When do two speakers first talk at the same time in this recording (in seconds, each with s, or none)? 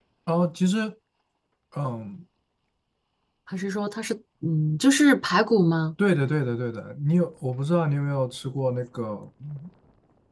none